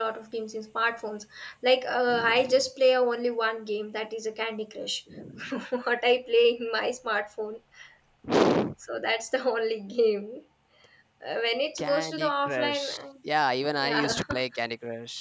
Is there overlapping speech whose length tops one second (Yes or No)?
Yes